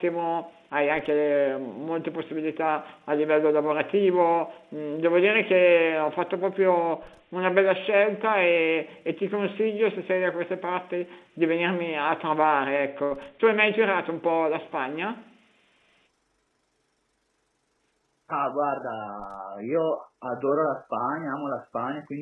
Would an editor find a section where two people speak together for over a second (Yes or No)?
No